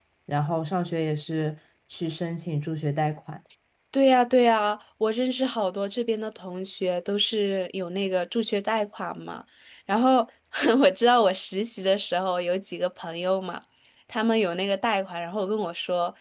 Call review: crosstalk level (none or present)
none